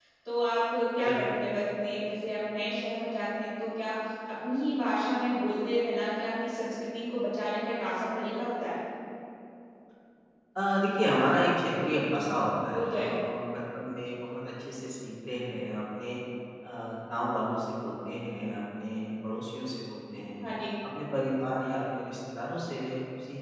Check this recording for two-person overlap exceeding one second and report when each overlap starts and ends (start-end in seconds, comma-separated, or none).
none